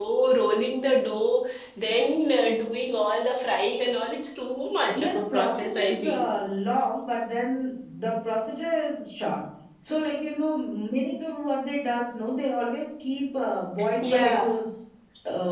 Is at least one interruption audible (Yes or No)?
Yes